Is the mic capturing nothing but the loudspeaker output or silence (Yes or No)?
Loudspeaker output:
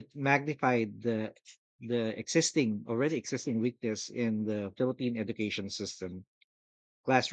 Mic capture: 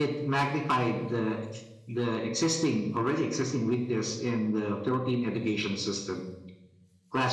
Yes